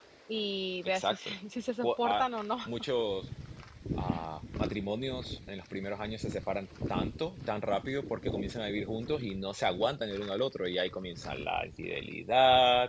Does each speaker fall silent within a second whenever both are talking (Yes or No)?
Yes